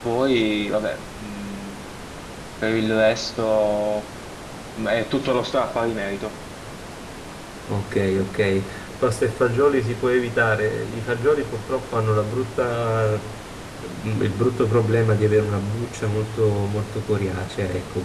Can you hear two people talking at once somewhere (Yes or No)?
No